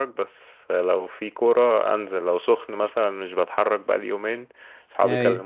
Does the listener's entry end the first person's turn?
No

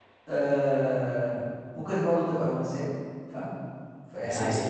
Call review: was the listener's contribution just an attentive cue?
Yes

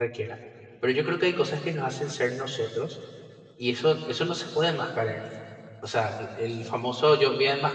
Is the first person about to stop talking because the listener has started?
No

